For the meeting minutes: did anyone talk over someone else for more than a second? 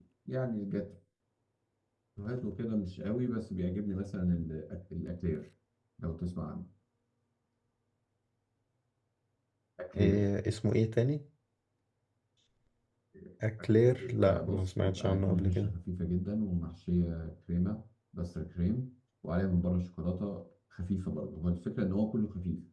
Yes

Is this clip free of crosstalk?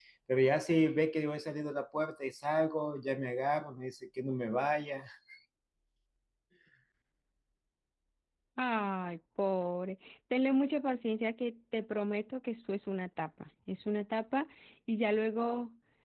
Yes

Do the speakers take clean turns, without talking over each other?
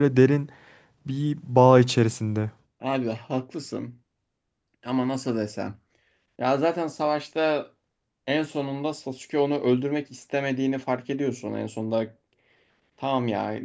Yes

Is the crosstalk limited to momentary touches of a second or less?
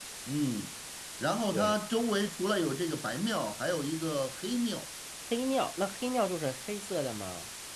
Yes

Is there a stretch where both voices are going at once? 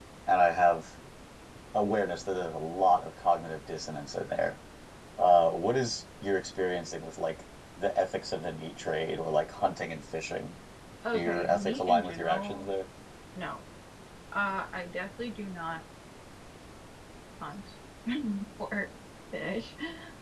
Yes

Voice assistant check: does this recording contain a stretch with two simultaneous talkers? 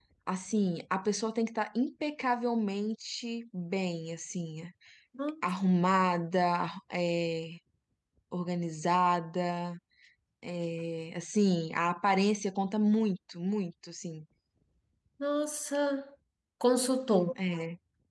No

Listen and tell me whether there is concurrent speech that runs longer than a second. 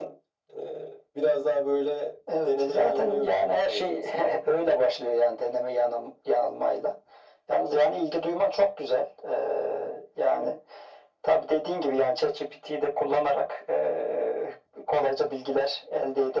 Yes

